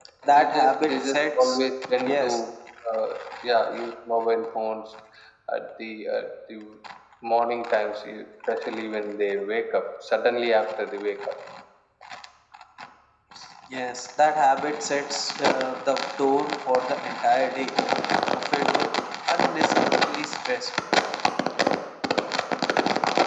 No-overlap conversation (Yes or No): No